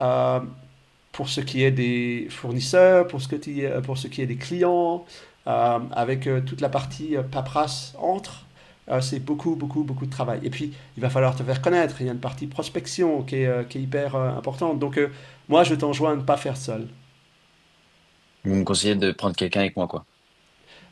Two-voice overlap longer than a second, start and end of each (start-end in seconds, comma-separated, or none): none